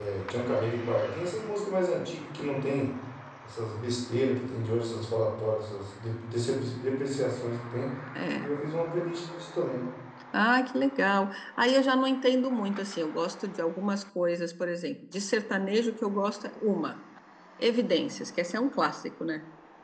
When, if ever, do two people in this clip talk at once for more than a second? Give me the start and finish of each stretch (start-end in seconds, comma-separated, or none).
none